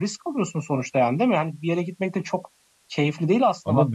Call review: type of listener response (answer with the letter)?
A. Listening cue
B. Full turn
B